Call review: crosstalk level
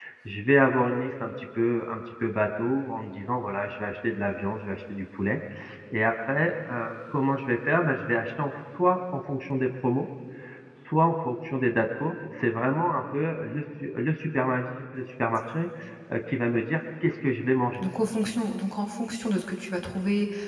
none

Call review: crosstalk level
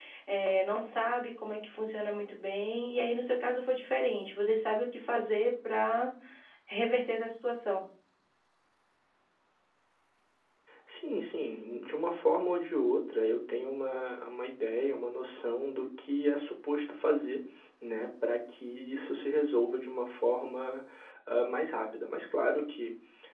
none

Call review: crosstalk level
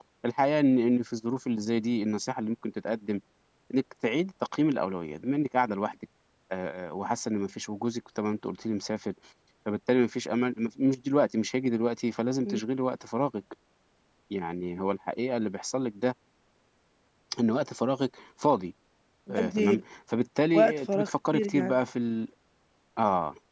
present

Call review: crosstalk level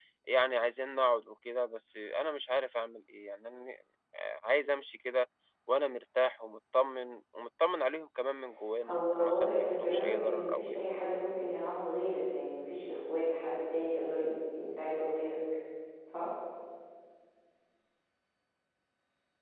present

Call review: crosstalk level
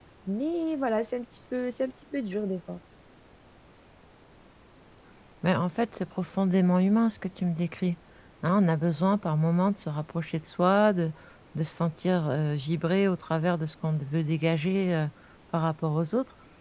none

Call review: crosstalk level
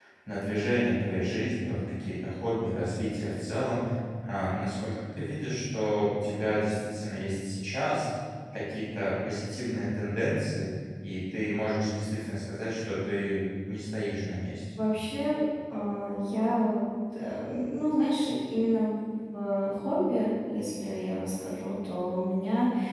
none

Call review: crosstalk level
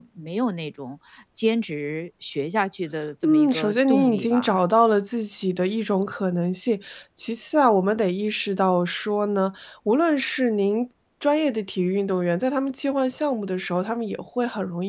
present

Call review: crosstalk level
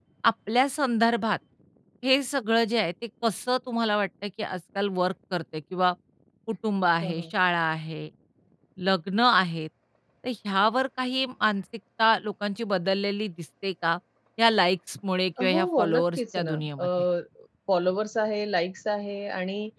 present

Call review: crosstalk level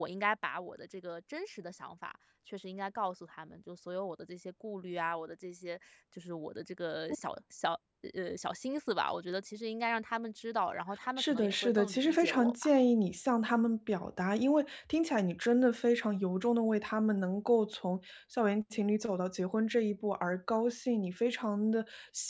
present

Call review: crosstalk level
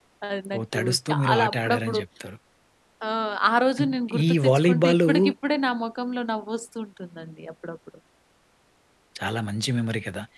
present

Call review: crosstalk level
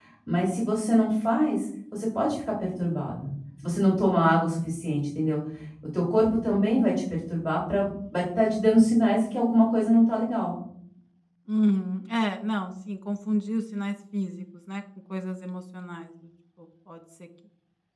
none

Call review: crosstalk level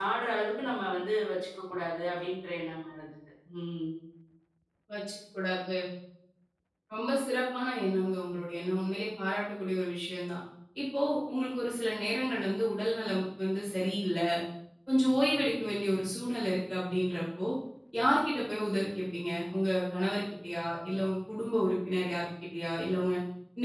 none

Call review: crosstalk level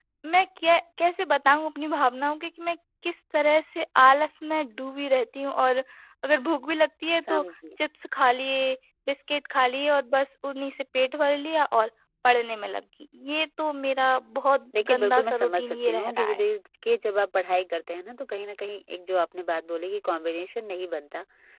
present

